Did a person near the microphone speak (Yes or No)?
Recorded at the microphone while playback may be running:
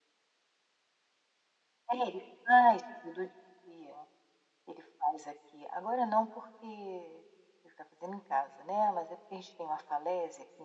No